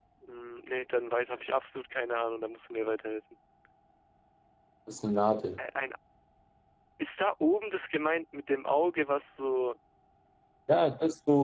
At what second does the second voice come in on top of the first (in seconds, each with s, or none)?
none